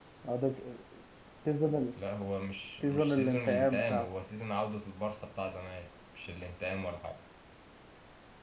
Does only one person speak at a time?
No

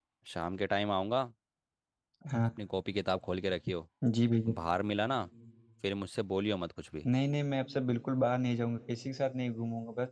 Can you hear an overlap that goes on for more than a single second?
No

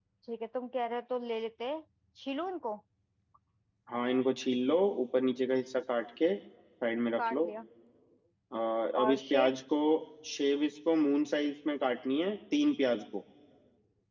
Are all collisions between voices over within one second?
Yes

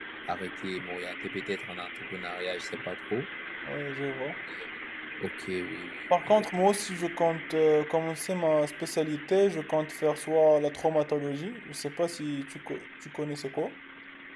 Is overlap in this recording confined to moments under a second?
Yes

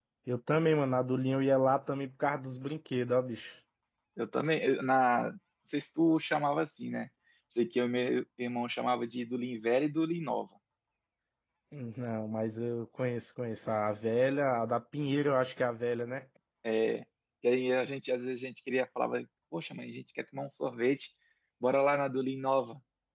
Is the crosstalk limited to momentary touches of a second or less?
Yes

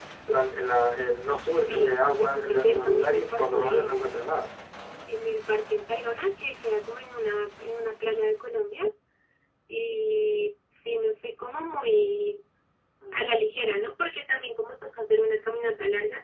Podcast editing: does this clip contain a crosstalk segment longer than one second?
Yes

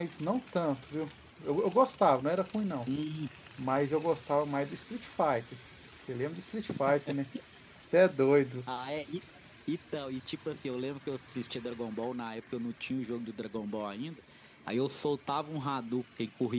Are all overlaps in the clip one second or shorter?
Yes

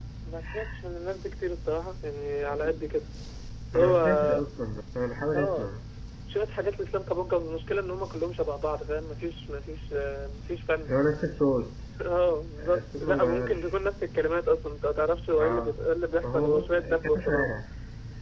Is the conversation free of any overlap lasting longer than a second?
No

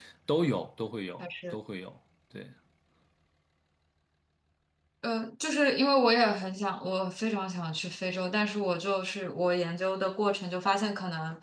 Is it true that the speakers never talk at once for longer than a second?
Yes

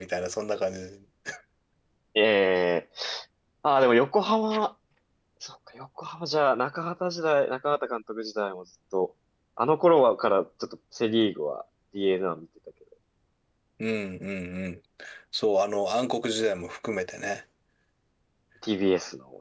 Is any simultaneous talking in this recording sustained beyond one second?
No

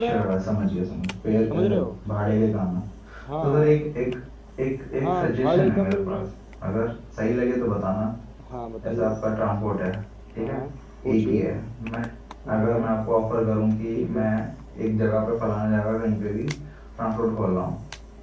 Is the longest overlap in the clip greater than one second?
Yes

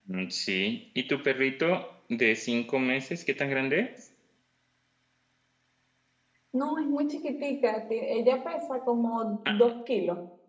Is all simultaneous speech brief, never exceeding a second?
Yes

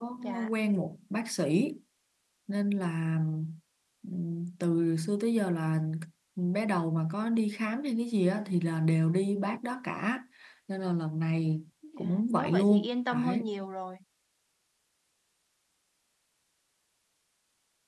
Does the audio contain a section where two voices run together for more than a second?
Yes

